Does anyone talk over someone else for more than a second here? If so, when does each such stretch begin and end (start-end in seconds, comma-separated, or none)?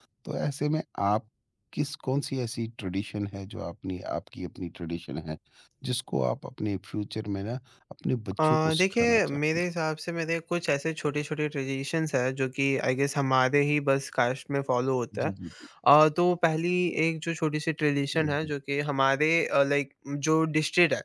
8.4-9.6